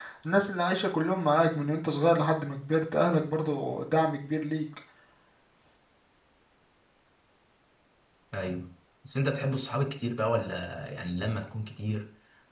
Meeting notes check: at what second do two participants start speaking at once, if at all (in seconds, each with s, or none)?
none